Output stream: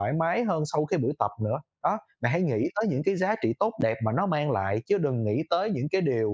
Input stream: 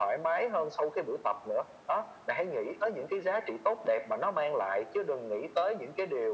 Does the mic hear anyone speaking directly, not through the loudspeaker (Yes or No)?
No